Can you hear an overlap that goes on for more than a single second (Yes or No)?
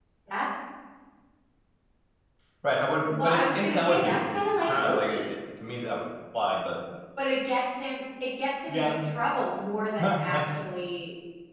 Yes